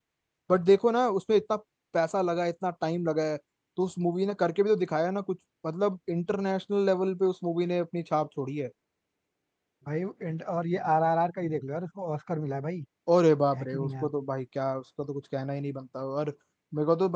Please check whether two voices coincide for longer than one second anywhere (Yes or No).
No